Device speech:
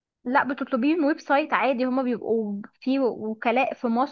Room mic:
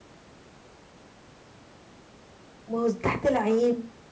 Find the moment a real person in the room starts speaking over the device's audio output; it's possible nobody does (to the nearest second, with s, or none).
3 s